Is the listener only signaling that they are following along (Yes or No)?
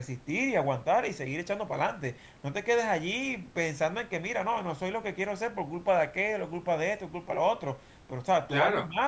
No